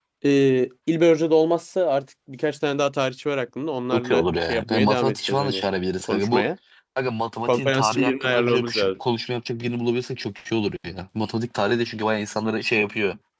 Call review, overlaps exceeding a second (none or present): present